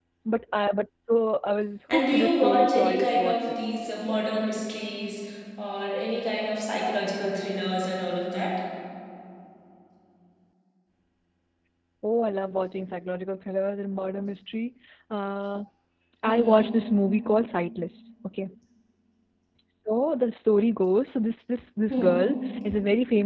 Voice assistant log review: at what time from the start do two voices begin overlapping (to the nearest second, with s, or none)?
2 s